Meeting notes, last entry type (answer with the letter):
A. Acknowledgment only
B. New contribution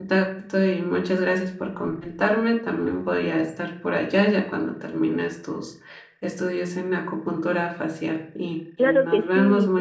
B